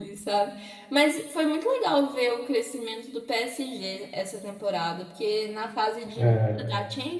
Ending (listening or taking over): listening